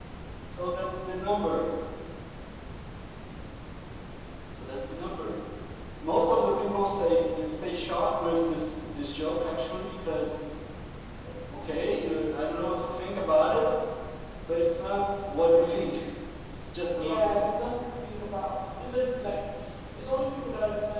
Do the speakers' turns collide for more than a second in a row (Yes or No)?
No